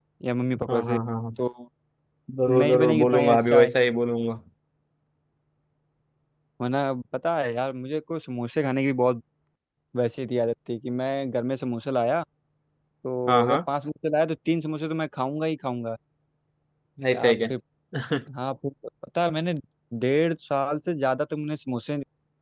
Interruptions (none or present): present